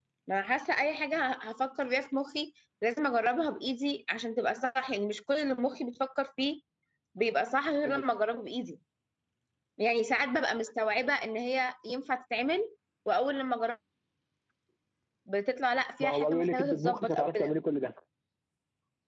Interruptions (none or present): present